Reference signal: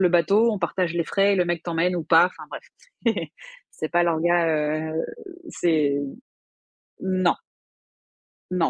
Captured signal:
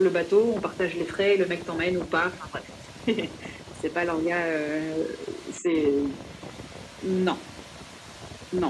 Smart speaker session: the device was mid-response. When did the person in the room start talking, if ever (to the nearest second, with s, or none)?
none